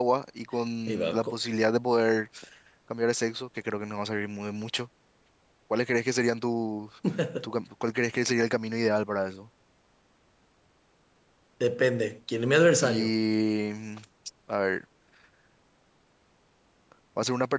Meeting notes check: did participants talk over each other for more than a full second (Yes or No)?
No